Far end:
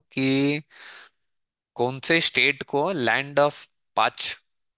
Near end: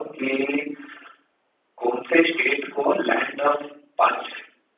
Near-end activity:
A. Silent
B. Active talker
A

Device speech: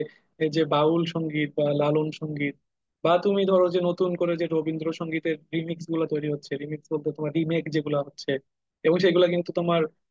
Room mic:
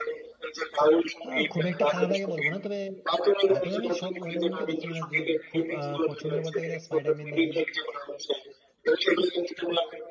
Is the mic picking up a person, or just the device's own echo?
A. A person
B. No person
A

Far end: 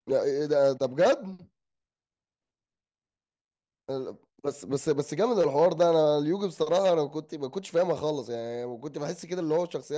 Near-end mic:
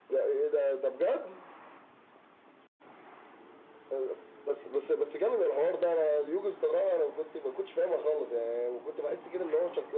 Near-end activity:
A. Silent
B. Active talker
A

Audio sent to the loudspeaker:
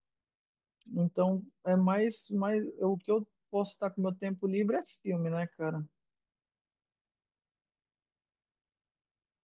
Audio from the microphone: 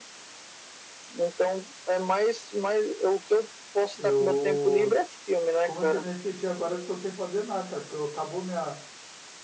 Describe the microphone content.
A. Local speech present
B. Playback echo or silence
A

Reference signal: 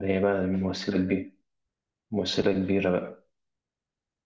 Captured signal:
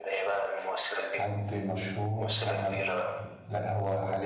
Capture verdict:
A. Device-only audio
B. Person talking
B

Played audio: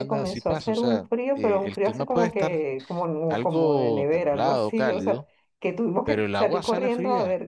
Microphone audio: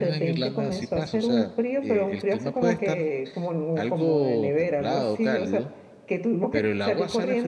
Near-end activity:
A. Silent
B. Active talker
A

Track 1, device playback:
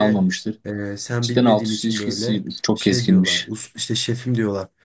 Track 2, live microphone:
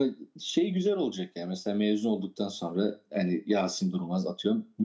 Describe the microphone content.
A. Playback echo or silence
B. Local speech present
B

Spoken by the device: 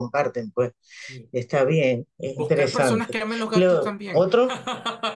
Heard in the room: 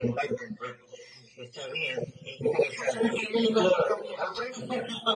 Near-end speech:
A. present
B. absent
B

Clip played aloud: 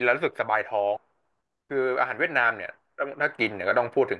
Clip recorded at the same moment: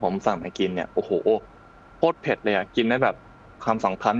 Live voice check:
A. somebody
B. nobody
A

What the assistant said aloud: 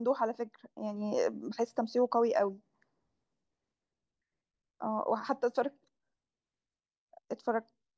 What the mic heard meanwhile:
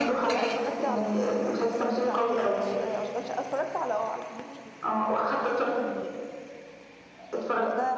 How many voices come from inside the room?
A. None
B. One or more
B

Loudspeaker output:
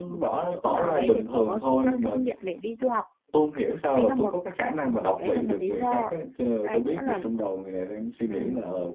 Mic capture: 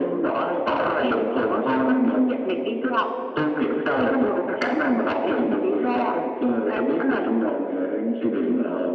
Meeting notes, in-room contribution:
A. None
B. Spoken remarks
A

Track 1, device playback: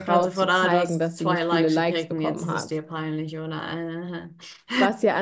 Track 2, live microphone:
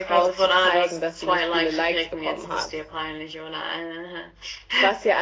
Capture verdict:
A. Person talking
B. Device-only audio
B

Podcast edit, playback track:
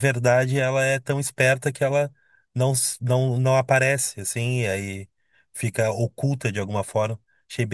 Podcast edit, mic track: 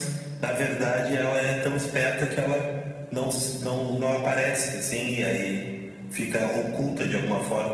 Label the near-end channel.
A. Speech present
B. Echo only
B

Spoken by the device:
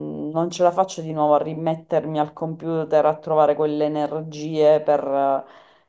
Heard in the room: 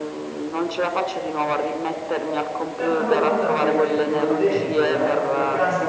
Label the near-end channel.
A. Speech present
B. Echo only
A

